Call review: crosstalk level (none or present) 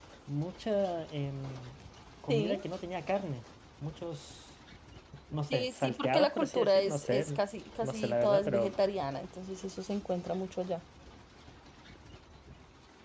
present